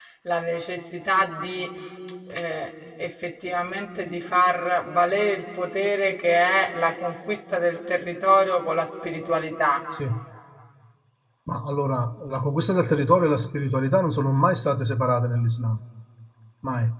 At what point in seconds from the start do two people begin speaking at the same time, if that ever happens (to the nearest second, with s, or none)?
none